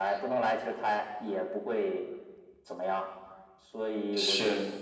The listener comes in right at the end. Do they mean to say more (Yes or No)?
No